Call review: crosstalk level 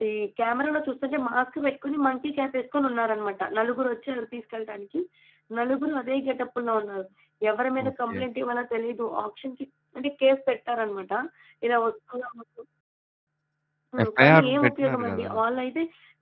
present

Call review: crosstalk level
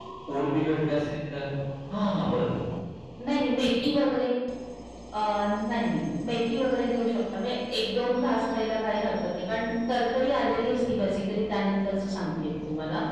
none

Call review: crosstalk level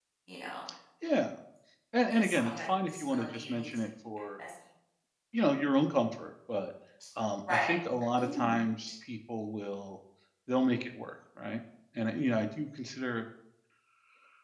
present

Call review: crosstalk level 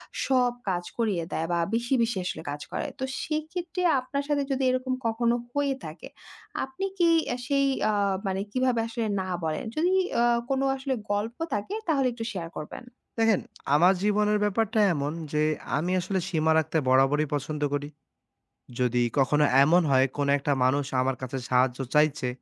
none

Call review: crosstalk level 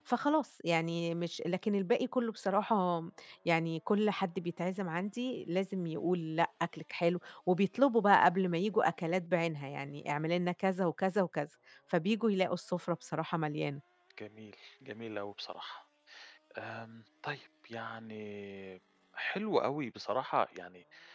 none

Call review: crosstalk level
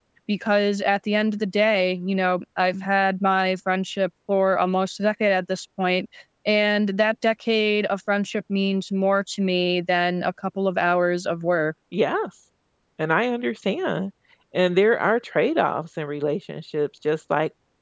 none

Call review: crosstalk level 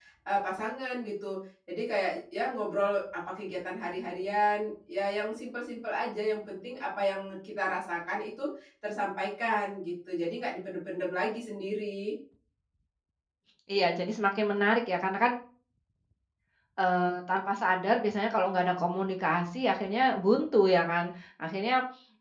none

